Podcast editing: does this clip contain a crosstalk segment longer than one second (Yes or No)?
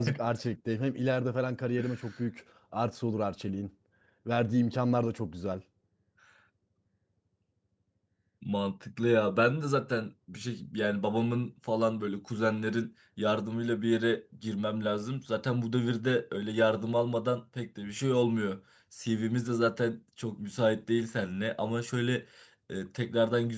No